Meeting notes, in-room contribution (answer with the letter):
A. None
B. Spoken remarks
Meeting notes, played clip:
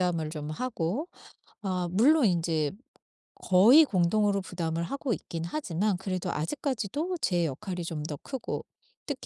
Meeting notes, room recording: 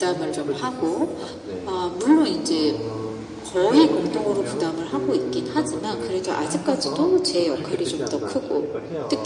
B